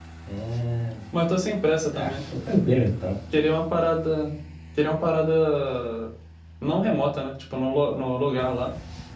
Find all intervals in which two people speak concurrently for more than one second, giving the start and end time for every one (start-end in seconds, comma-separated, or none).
none